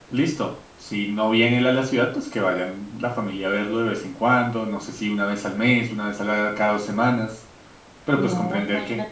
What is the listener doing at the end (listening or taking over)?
taking over